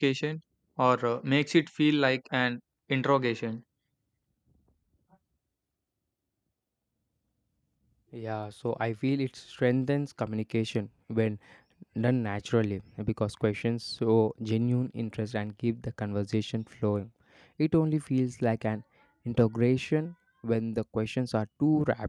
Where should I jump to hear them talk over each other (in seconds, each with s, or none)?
none